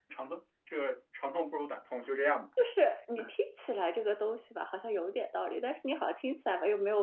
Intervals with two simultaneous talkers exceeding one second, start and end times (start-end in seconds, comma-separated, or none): none